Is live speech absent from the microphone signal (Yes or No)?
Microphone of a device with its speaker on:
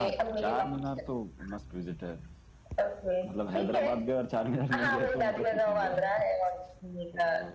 No